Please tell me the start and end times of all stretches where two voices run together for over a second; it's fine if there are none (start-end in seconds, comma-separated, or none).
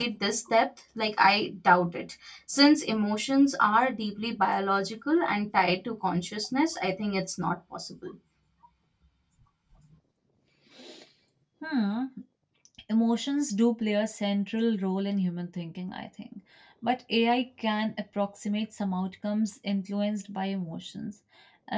none